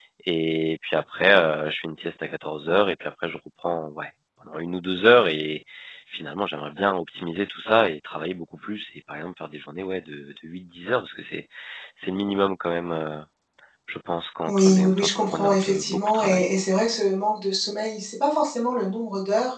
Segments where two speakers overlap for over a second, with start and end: 14.5-16.5

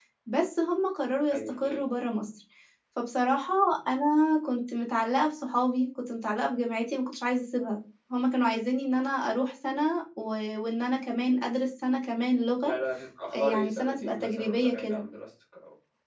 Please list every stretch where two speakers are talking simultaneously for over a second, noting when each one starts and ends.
13.3-15.0

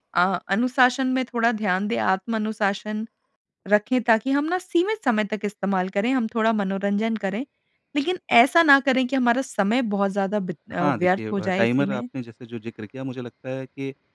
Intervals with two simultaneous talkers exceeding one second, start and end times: 10.7-12.0

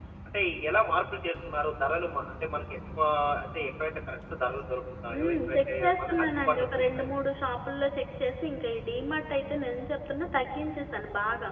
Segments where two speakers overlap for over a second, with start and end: 5.1-7.1

